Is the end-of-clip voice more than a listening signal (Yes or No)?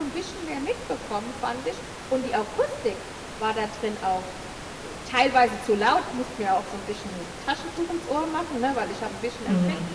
Yes